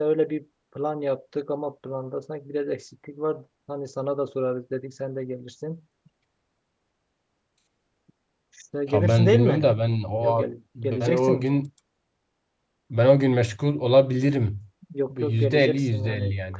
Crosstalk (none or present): present